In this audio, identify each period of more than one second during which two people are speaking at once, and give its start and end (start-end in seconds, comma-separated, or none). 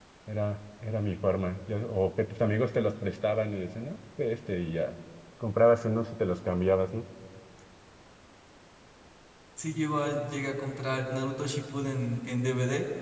none